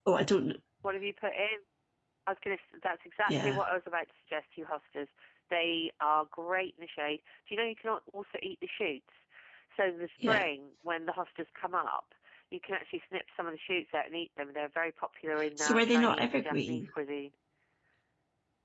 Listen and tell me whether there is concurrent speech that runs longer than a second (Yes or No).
Yes